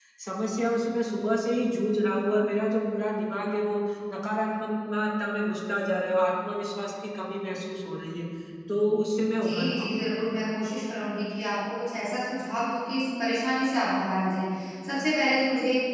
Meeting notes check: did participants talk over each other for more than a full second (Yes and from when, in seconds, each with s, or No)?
No